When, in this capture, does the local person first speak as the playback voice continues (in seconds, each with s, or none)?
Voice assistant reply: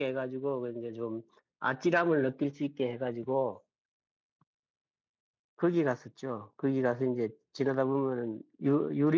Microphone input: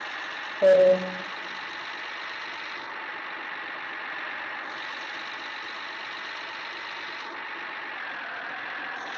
0.6 s